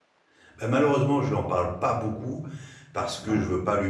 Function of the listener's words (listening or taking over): listening